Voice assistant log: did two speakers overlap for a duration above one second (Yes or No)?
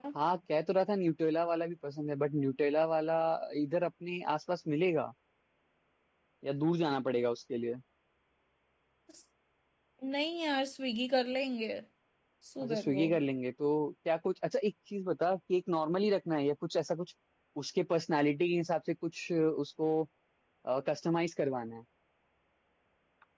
No